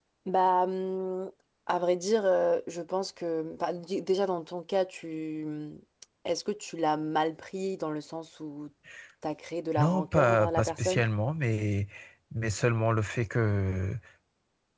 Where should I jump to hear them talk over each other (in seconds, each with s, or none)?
9.8 s